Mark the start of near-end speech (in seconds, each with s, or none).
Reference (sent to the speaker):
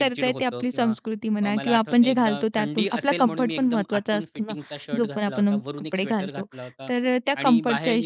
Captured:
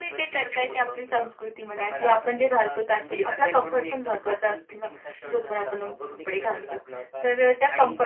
none